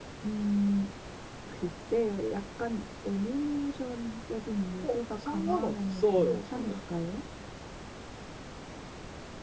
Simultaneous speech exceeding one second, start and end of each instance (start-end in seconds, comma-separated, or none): 4.8-6.7